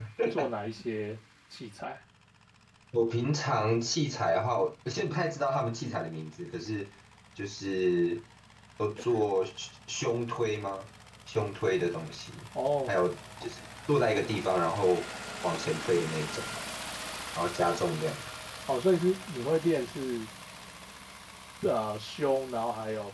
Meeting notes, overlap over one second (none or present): none